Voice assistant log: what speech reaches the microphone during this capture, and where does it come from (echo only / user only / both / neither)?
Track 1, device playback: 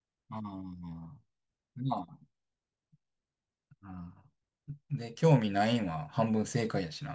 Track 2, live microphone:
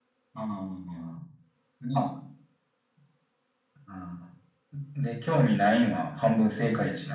echo only